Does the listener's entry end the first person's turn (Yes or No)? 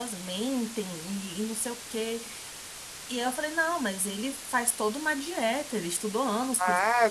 Yes